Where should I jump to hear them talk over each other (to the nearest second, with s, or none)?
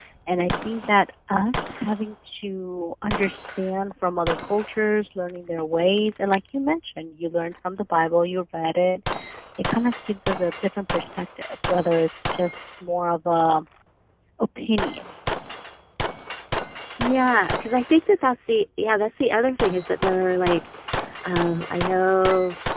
none